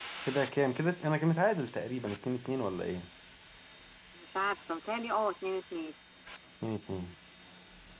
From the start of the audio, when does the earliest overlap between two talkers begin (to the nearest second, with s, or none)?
none